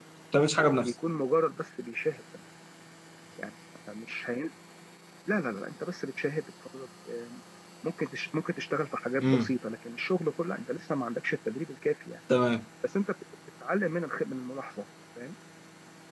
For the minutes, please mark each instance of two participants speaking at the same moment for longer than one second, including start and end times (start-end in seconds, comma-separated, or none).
none